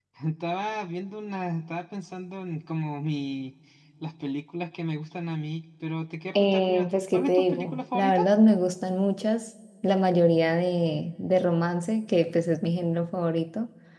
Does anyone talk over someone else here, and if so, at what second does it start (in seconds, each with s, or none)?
6.4 s